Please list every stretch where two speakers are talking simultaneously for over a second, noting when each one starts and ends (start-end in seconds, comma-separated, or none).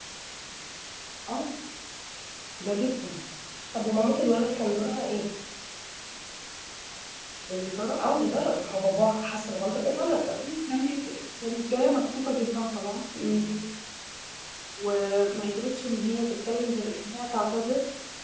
none